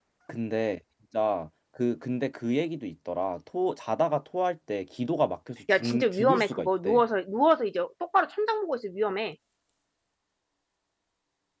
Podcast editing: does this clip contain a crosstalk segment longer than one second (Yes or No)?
Yes